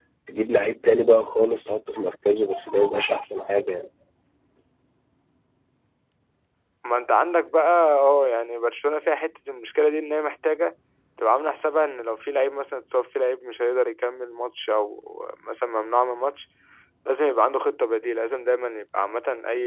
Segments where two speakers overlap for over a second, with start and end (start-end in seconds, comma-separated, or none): none